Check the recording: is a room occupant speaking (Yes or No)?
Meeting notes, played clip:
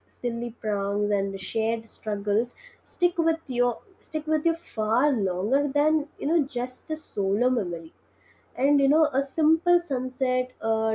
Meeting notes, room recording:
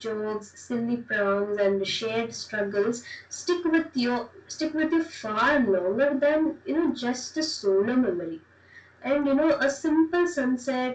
No